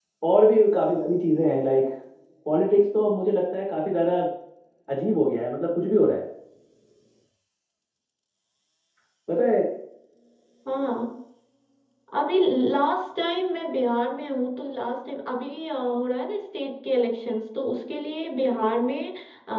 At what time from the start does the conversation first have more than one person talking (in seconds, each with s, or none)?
none